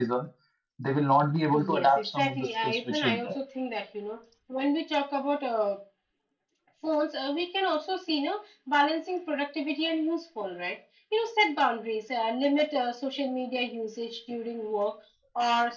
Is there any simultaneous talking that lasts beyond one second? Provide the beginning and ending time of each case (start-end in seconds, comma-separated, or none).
1.5-3.4